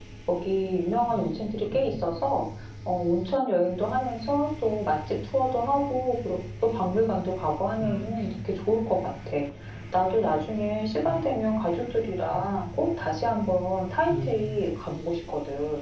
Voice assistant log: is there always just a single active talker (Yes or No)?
No